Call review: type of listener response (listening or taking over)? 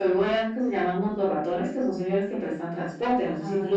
taking over